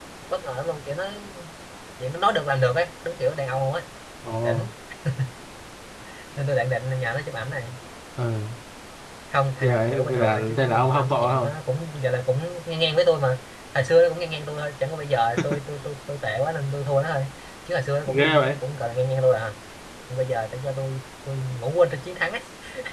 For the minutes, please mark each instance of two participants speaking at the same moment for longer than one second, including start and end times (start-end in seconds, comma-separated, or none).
9.6-11.5